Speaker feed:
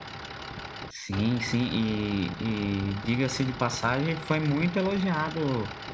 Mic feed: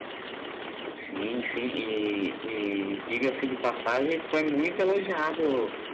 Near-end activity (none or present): none